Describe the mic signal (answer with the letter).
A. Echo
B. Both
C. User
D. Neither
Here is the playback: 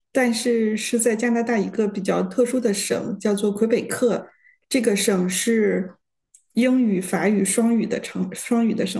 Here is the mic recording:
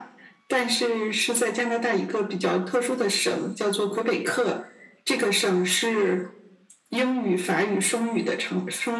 A